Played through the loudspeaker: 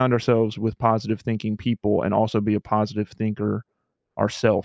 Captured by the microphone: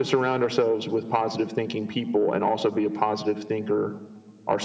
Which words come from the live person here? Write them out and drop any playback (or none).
none